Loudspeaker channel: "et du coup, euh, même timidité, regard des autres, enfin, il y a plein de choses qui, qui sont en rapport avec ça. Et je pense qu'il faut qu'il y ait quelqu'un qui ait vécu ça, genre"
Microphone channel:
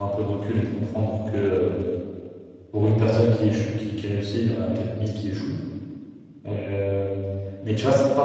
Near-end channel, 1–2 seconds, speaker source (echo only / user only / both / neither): user only